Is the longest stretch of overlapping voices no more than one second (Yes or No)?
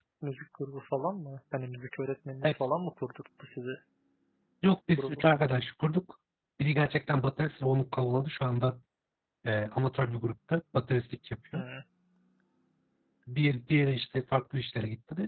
Yes